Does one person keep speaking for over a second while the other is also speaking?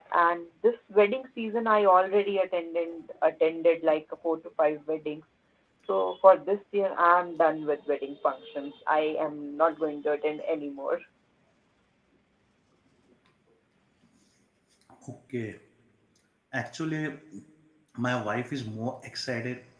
No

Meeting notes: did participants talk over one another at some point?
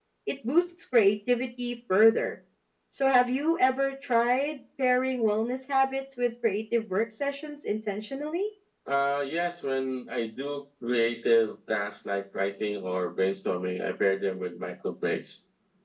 No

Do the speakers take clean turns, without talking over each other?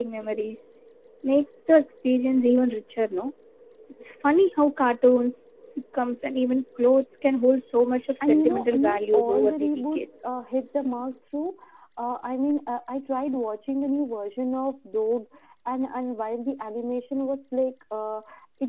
No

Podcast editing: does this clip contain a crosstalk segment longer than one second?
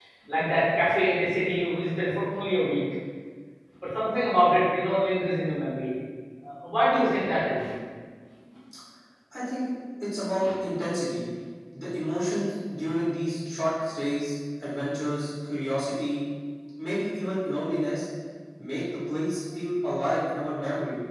No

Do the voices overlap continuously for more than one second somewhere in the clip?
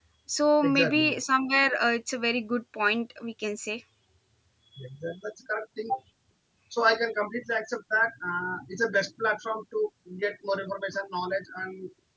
No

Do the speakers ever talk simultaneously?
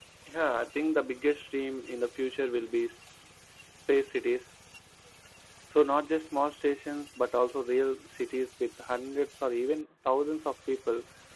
No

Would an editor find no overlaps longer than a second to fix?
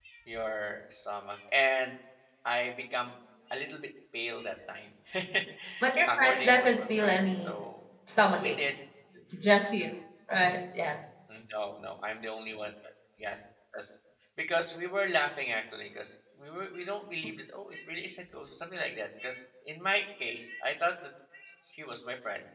No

